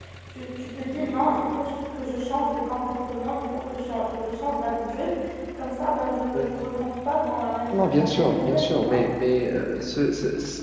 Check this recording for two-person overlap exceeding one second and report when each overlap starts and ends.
7.7-9.0

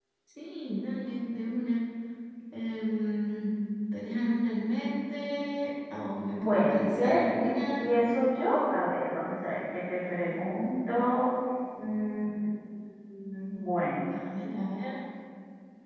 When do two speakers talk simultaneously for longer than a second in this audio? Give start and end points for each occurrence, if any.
6.4-7.9

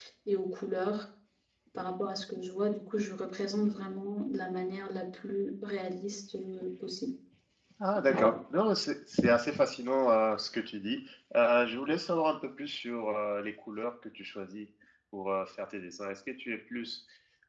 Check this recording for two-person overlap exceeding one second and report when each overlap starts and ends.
none

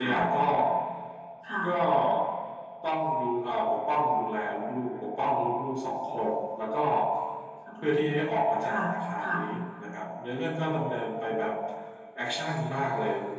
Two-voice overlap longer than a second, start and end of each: none

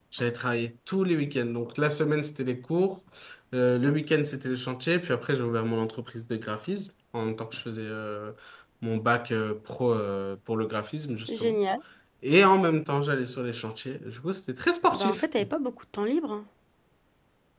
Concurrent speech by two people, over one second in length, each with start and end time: none

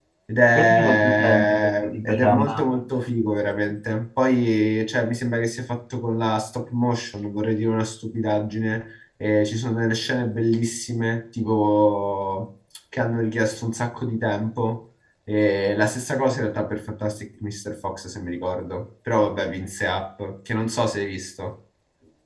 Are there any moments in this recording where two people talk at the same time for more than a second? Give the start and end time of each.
0.6-2.6

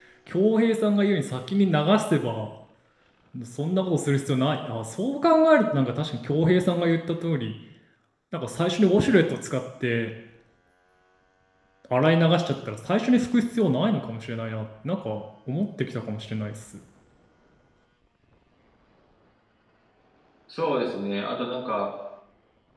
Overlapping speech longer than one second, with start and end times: none

